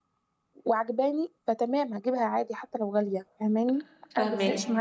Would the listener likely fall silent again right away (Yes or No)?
Yes